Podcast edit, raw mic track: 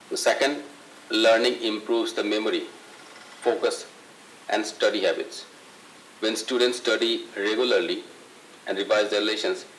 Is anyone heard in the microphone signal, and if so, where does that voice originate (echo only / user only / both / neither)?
echo only